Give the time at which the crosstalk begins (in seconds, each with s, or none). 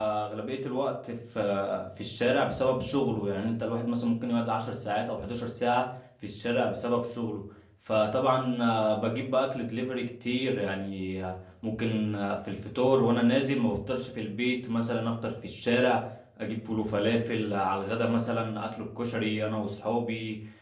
none